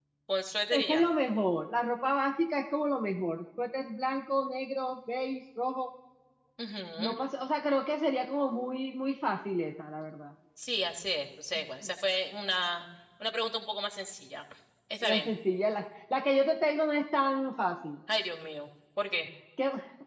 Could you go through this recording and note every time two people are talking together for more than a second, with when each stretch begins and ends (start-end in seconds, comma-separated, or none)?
none